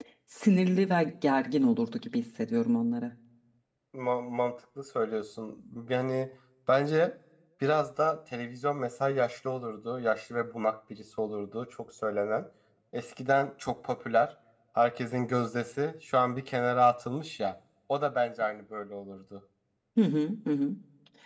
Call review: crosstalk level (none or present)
none